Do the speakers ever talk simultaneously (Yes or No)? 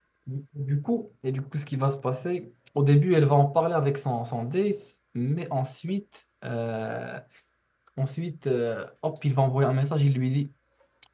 No